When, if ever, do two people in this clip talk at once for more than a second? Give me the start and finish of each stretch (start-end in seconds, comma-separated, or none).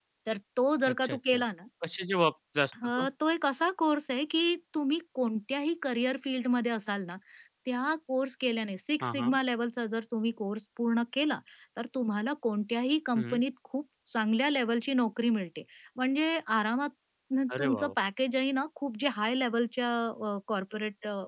none